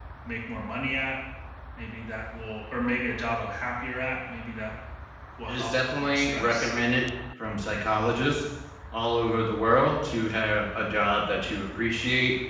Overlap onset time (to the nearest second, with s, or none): 5 s